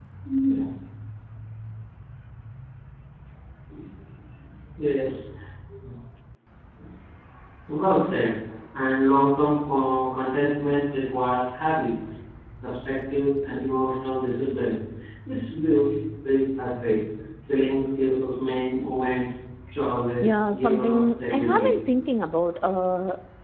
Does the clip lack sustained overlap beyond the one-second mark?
No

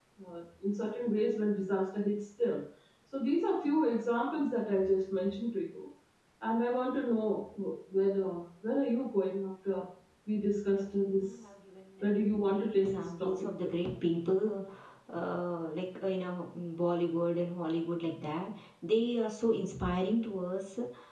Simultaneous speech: Yes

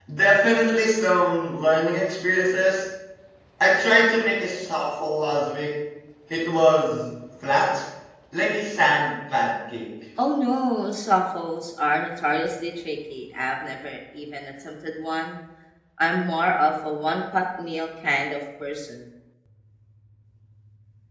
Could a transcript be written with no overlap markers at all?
Yes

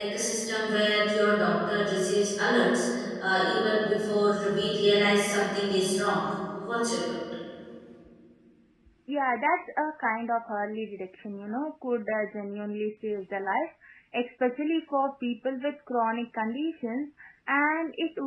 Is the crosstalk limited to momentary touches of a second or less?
Yes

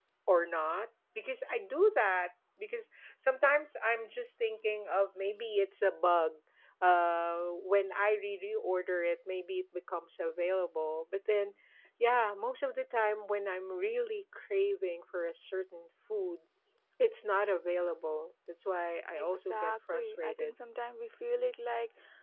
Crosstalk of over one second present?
Yes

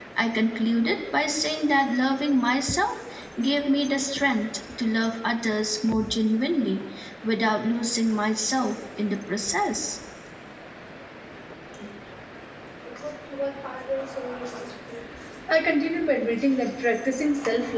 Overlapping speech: No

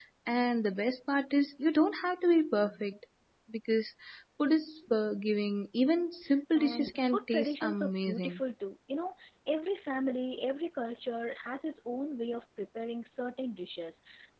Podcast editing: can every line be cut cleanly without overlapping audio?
No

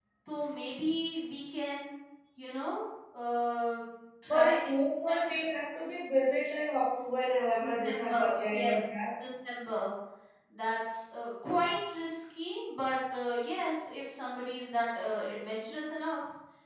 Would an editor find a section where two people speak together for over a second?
Yes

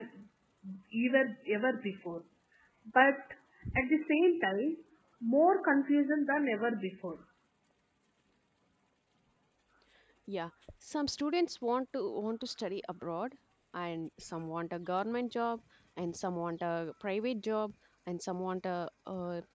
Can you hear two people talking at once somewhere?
No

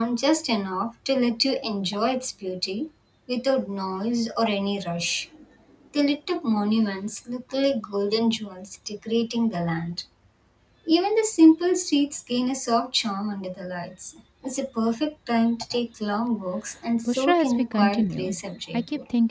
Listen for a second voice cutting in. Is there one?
Yes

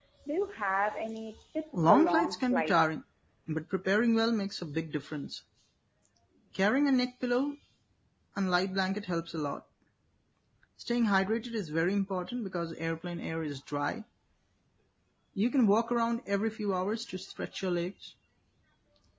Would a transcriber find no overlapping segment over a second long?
No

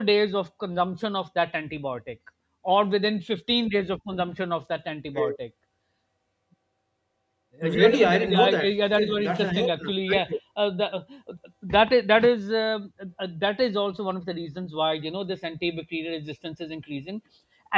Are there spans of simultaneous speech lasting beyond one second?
Yes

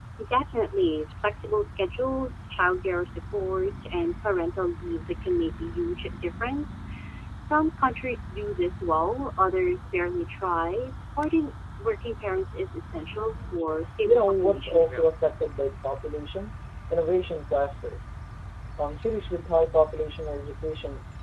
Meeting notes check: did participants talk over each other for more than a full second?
Yes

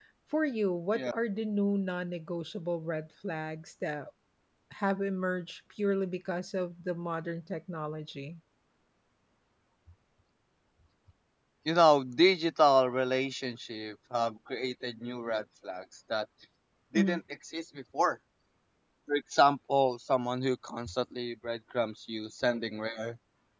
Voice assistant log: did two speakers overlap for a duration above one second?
No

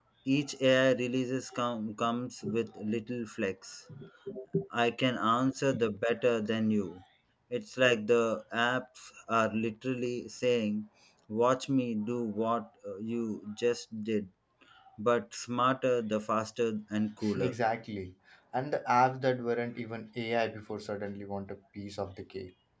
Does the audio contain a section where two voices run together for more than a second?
No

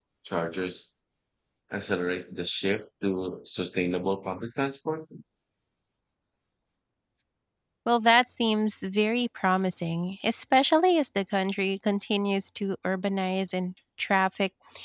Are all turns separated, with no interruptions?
Yes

